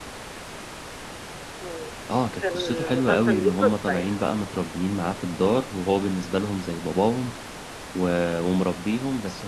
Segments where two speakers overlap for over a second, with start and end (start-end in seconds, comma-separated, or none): 2.4-4.2